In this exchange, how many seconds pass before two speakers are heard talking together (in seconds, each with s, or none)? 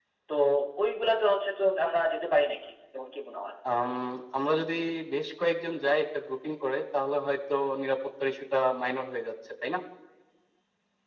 none